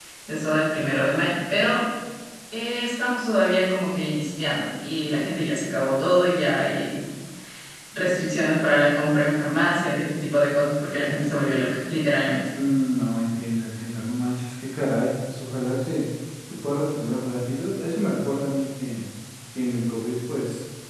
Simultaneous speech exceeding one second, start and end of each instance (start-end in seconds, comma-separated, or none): none